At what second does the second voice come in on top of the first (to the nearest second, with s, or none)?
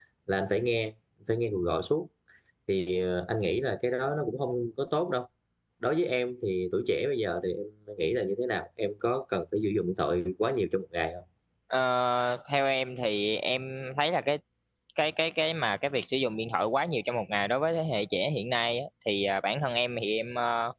none